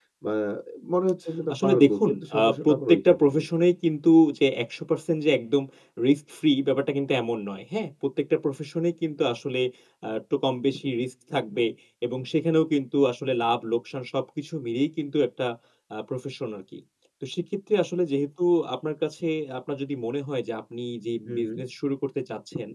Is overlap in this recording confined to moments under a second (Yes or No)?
No